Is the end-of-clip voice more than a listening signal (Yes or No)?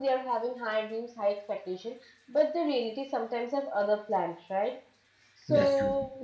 No